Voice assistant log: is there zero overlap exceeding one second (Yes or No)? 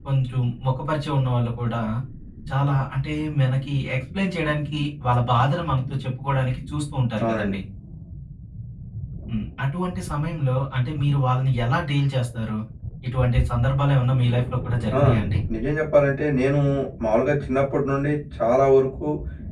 Yes